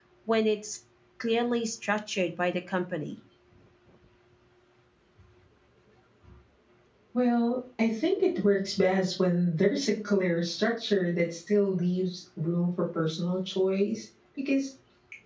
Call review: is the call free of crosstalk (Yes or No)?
Yes